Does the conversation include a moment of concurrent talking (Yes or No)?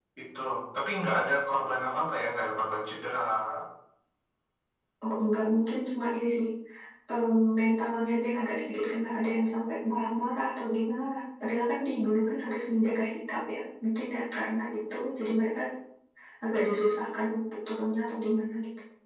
No